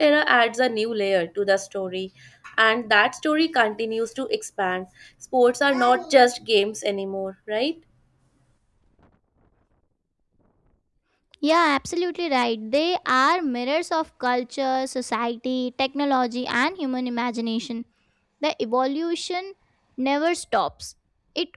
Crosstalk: none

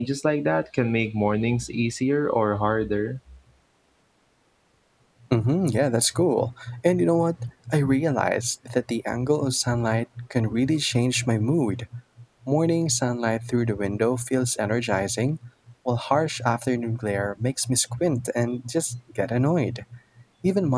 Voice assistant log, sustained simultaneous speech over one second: none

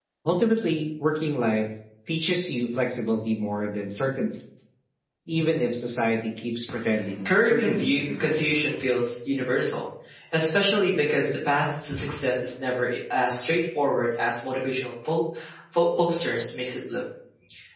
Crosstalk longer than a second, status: present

